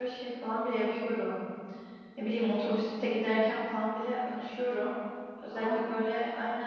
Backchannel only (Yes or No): Yes